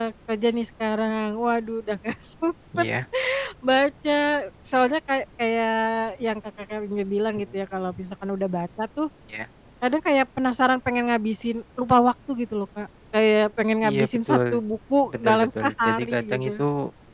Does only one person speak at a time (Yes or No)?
No